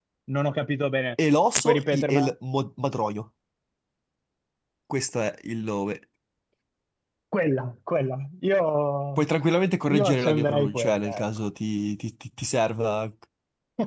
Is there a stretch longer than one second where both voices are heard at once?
Yes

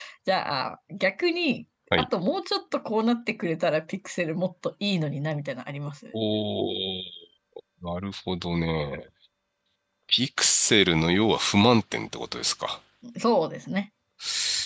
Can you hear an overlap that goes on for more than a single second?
No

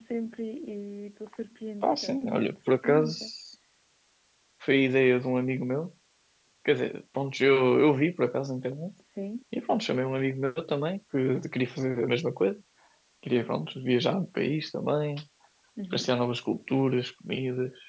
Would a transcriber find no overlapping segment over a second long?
No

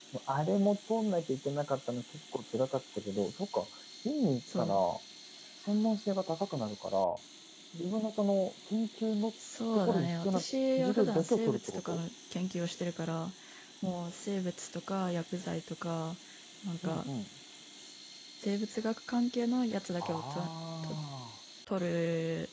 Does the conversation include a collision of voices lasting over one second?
Yes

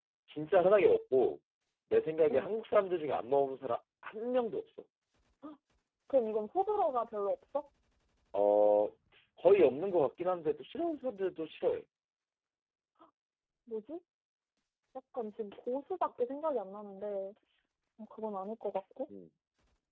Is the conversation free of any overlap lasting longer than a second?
Yes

